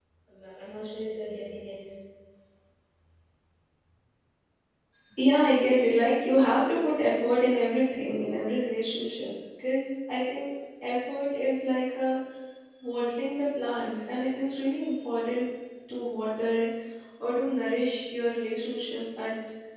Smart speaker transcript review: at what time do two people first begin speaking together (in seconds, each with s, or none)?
none